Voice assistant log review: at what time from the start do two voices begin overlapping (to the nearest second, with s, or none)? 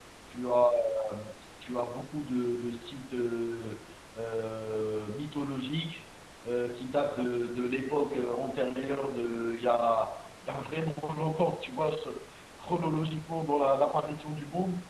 none